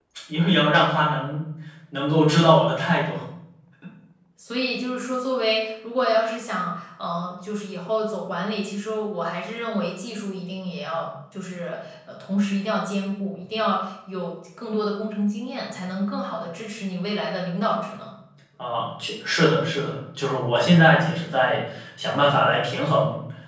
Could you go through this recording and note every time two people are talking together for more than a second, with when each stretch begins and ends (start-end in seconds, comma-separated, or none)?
none